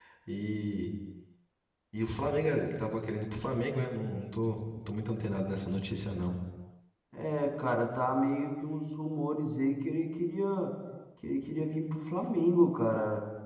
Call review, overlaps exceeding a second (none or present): none